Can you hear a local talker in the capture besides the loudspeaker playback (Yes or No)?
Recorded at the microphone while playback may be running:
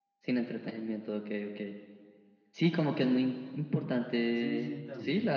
Yes